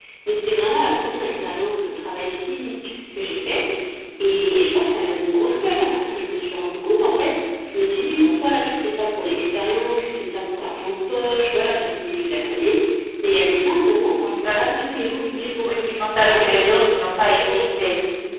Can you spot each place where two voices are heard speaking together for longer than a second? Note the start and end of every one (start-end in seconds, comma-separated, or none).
16.2-17.6